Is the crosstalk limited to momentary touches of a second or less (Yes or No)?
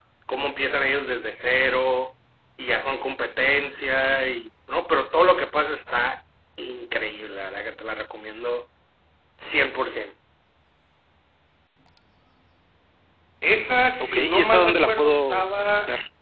No